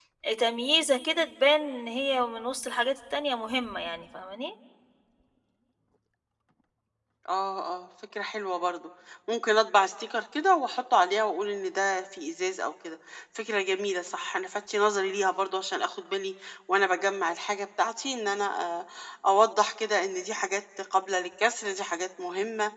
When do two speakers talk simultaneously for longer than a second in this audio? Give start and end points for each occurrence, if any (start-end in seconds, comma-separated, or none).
none